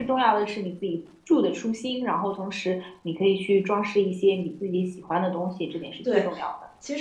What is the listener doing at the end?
taking over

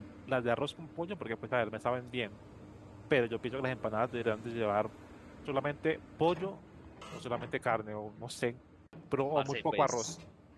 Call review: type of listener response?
taking over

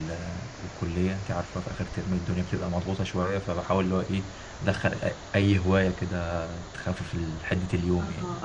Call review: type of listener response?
taking over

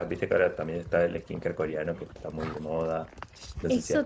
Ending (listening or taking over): taking over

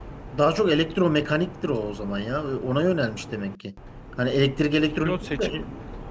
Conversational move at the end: taking over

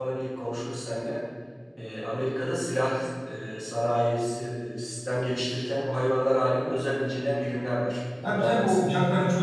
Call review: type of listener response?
taking over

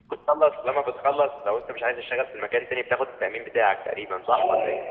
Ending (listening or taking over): taking over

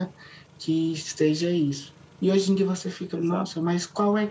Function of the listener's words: listening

